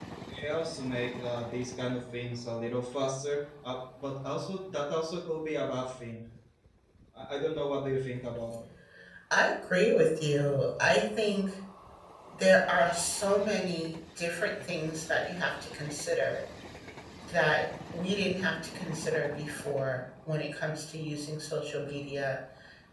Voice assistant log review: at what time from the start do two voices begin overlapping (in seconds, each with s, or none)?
none